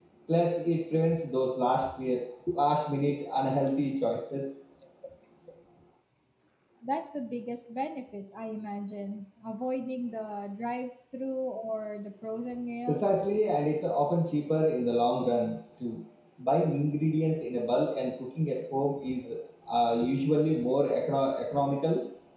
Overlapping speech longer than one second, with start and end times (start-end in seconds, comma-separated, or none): none